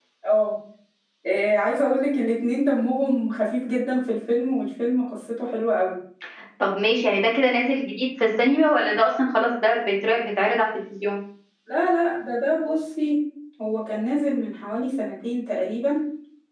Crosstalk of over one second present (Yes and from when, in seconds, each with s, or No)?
No